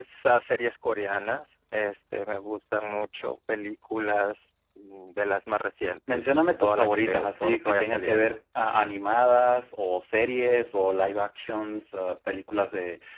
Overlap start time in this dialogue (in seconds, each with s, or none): 6.1 s